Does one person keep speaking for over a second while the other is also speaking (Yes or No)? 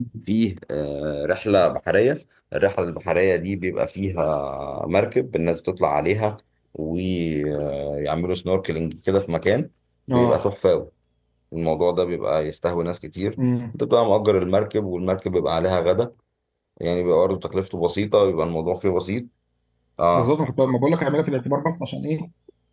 No